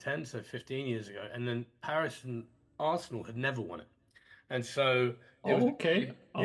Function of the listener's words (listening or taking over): taking over